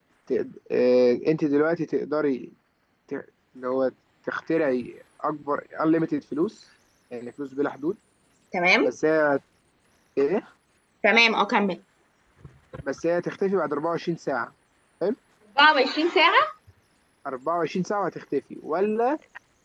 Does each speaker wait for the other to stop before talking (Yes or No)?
Yes